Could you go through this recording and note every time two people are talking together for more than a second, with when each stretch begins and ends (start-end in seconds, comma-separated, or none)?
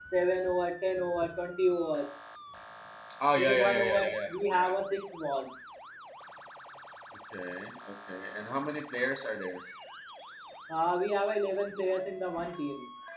3.4-4.7